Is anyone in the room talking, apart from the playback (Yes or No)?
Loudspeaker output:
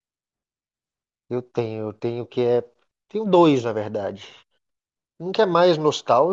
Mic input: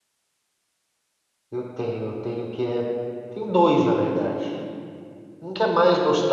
No